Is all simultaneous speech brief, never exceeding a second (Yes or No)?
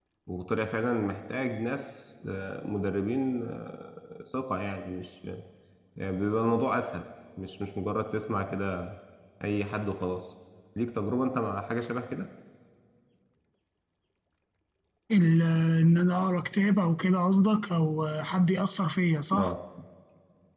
Yes